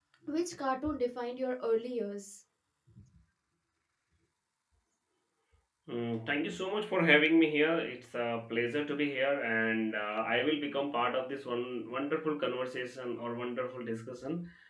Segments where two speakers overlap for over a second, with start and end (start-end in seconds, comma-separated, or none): none